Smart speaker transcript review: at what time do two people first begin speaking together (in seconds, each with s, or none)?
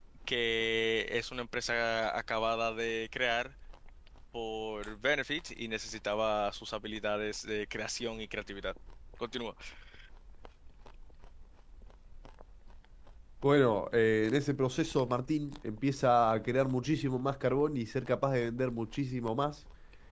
none